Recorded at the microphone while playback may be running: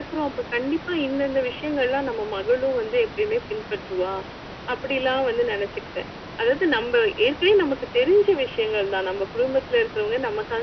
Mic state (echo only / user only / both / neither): echo only